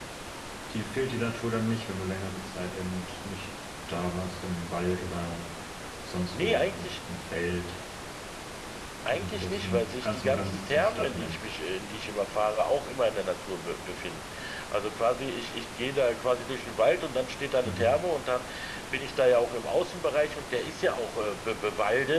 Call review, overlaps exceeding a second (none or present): present